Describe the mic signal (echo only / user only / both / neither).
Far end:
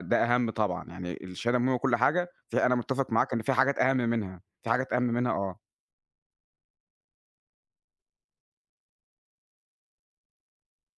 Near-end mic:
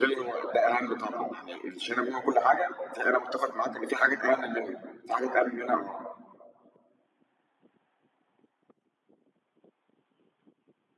echo only